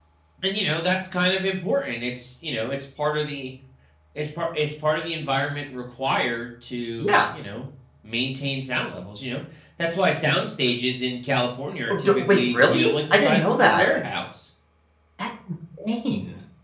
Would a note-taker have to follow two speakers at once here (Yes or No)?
Yes